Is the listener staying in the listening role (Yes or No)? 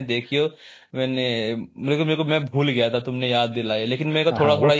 No